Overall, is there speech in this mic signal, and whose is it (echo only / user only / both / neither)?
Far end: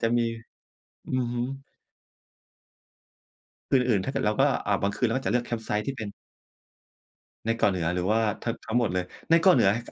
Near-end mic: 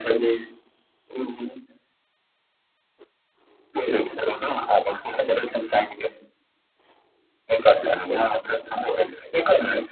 echo only